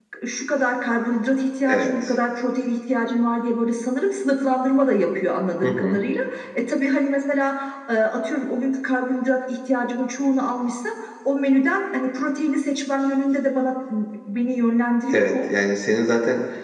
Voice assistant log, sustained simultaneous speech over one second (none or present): none